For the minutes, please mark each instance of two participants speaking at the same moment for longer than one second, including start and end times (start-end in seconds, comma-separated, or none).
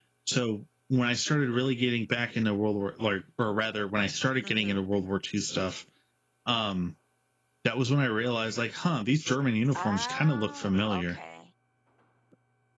9.7-11.2